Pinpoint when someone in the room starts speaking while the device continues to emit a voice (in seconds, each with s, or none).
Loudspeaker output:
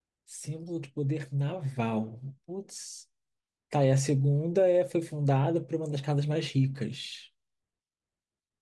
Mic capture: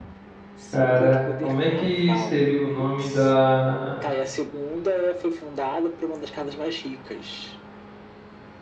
0.7 s